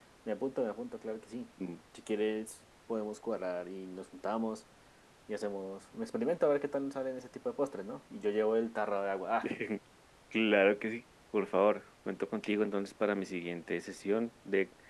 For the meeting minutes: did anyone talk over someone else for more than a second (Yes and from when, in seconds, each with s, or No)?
No